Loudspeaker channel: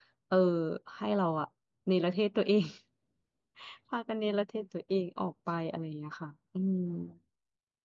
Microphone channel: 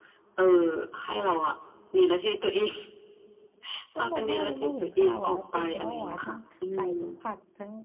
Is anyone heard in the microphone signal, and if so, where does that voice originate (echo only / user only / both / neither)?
both